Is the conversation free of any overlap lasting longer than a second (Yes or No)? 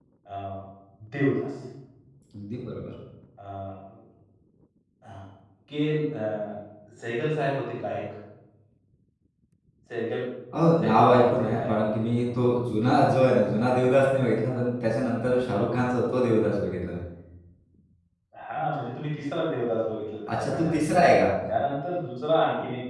No